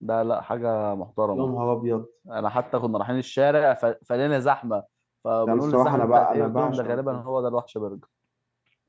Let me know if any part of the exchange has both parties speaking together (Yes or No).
Yes